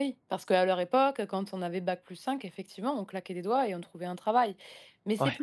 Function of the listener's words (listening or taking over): listening